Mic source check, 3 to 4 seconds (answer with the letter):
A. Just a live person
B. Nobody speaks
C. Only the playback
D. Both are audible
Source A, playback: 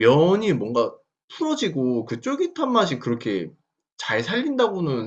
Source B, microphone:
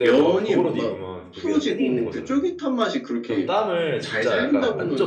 D